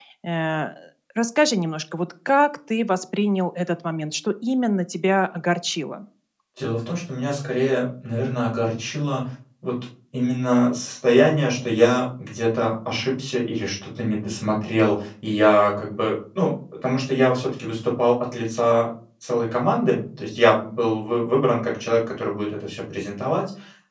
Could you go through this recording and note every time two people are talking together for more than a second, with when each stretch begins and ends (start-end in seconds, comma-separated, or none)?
none